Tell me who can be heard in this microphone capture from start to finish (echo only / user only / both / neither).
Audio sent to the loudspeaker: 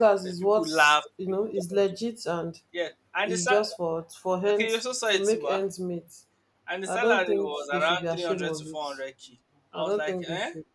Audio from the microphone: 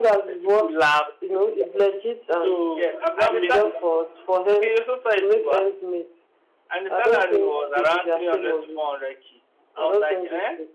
both